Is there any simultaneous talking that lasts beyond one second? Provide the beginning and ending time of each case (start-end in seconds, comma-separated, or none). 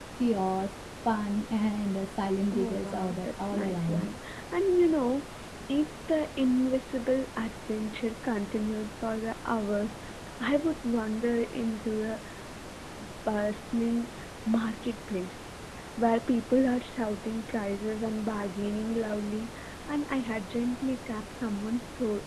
2.5-4.1